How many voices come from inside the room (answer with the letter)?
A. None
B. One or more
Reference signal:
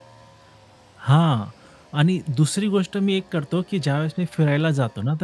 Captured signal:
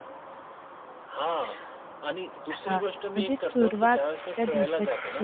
B